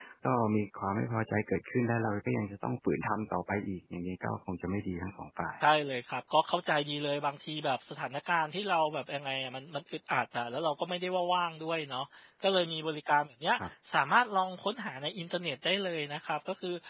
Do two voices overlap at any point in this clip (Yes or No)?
No